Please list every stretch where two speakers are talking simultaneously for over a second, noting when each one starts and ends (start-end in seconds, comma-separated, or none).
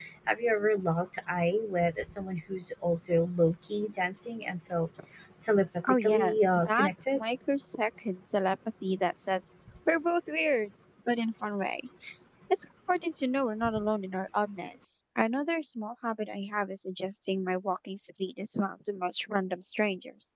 5.9-7.2